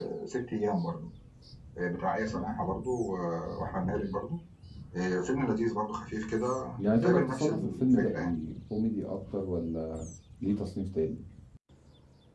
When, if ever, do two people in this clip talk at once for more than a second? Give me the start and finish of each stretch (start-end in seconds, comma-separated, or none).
7.0-8.3